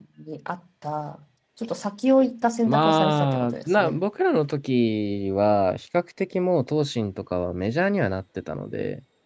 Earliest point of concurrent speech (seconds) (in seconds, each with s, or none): 2.7 s